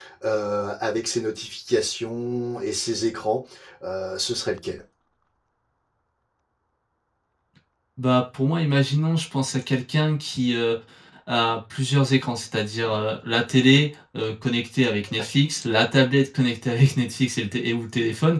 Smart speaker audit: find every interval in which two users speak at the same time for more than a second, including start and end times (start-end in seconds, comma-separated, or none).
none